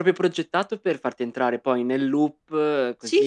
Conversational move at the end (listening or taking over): taking over